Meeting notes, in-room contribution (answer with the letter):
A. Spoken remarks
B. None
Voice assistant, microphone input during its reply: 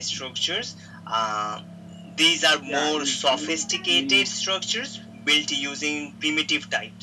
A